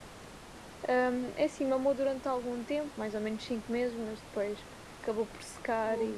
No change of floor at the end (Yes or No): Yes